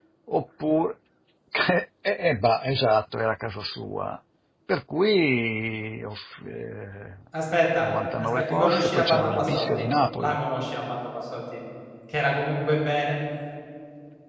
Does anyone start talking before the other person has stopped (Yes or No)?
Yes